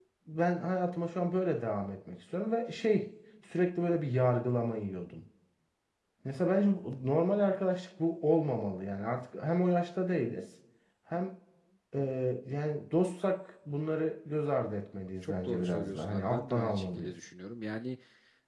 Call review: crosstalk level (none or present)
present